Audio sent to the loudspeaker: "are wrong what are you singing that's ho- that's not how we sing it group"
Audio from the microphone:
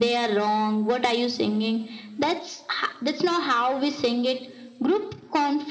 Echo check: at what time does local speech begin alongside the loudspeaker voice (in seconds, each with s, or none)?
none